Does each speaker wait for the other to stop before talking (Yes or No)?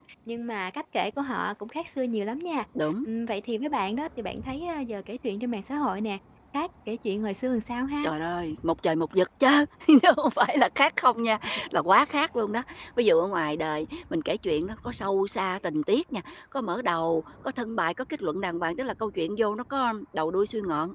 Yes